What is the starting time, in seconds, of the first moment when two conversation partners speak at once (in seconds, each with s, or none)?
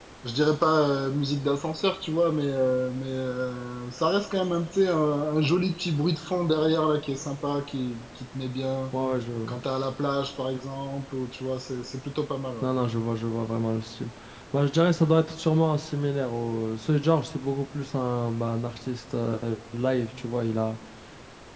none